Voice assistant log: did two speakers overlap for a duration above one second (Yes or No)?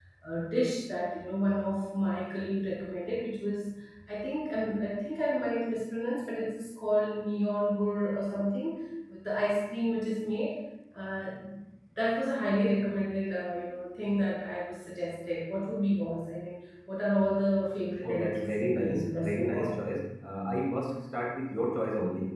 Yes